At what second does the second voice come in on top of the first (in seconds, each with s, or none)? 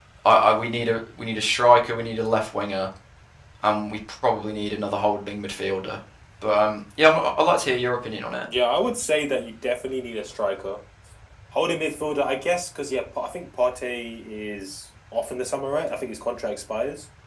none